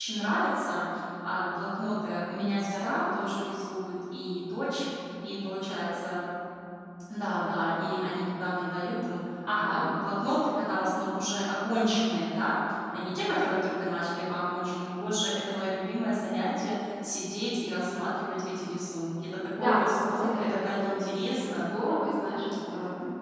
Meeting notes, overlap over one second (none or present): present